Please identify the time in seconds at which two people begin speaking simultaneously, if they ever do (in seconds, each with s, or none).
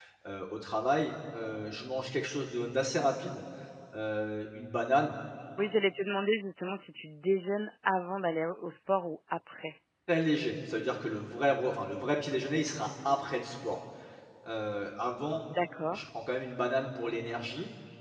none